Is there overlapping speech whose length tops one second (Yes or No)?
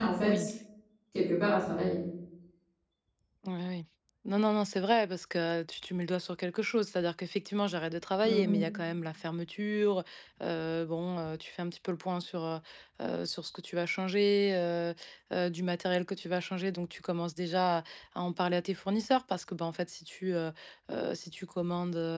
No